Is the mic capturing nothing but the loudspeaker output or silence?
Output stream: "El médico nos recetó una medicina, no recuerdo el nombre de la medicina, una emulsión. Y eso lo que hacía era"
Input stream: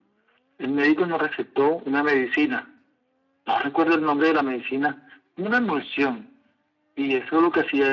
Yes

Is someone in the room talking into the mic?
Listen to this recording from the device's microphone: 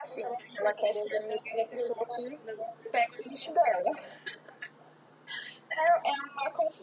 No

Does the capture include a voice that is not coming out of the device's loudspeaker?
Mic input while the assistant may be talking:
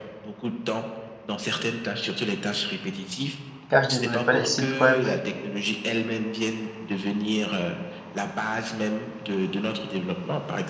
Yes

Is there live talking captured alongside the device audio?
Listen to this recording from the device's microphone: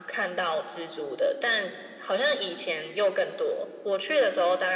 No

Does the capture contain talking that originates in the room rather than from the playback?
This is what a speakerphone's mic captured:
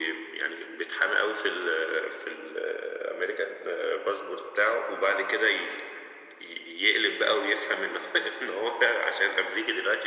No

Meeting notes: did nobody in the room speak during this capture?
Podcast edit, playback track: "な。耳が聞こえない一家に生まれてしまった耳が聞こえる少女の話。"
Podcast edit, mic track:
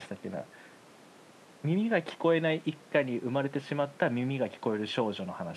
Yes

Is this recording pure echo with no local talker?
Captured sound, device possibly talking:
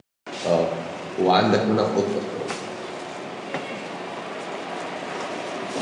No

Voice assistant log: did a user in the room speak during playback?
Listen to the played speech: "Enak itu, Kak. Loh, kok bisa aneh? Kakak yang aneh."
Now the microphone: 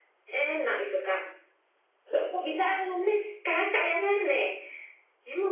No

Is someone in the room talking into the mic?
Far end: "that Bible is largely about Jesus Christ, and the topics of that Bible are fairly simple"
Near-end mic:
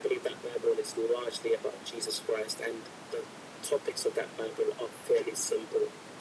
No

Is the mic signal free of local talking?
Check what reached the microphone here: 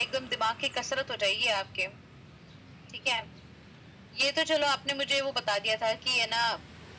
Yes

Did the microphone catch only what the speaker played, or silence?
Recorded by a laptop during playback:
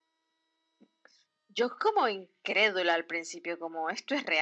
Yes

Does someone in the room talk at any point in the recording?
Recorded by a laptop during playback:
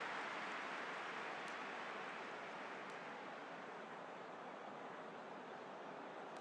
No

